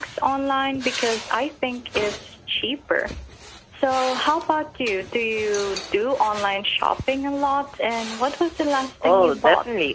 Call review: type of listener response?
taking over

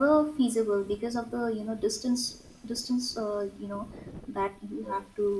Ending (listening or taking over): listening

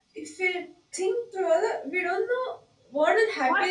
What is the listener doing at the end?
taking over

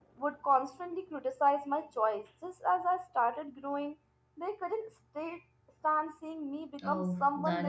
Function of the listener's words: taking over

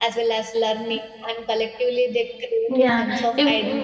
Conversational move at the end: taking over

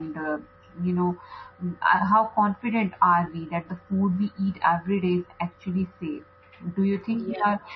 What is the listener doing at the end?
listening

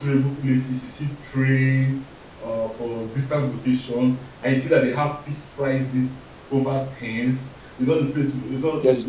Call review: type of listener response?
listening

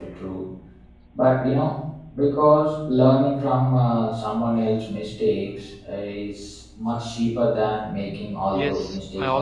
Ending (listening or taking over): taking over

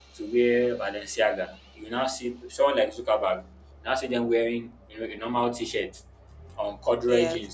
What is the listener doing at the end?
listening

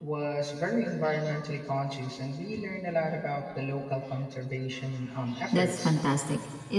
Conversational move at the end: taking over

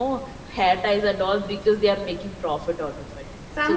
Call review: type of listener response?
taking over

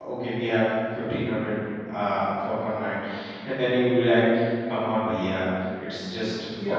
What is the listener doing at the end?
listening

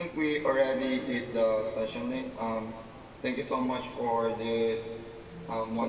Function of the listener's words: listening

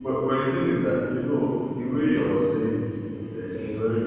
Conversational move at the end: listening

